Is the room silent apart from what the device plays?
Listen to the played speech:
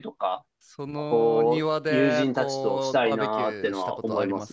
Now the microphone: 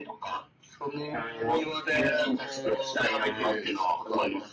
Yes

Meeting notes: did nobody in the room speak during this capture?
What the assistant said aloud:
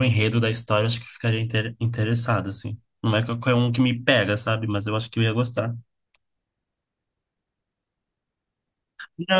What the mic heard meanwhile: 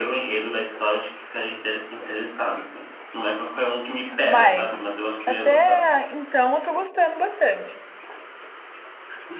No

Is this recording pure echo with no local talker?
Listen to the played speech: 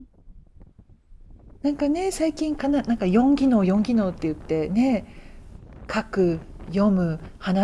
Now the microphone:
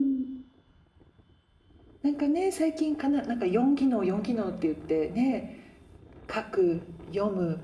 Yes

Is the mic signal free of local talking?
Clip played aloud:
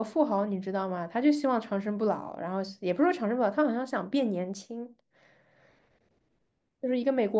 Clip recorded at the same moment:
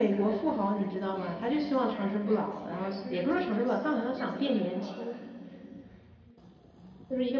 No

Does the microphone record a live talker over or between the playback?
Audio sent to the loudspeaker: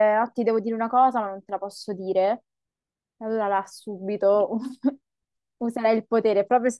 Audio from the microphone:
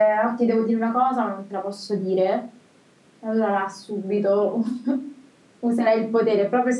No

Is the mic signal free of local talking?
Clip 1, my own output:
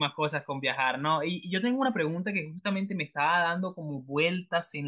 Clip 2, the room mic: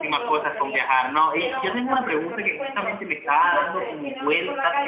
No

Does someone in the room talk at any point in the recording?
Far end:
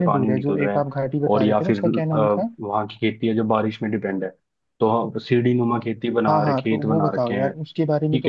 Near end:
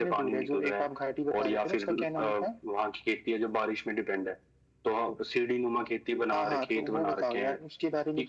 No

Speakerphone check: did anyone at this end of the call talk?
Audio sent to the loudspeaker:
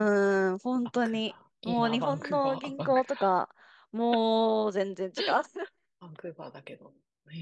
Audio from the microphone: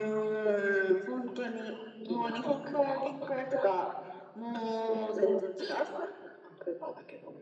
No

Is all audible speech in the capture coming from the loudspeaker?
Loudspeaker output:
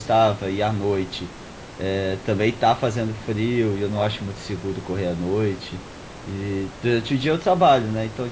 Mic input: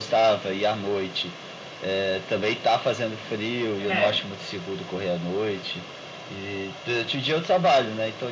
No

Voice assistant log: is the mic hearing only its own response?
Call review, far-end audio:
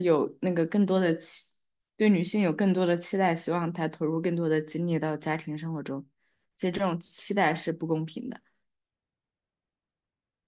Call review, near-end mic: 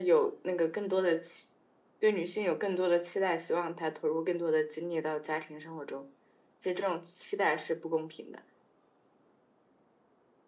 Yes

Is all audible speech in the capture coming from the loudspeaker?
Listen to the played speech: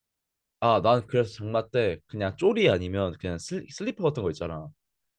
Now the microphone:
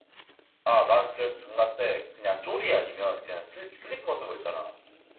Yes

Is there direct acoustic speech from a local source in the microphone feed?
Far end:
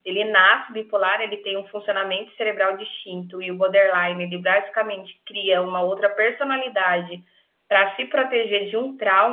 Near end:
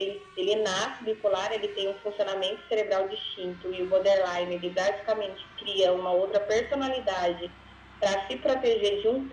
No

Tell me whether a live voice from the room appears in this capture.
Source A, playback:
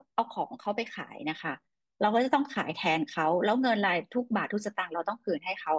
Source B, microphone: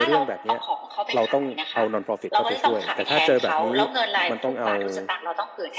Yes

